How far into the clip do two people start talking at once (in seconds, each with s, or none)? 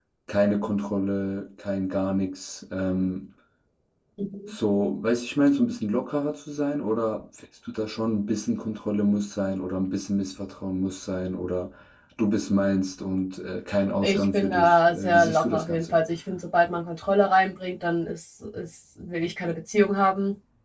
14.0 s